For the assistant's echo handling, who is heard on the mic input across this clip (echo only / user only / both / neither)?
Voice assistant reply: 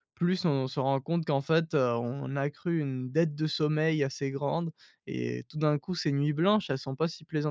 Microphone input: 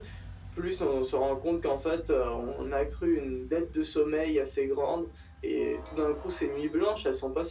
echo only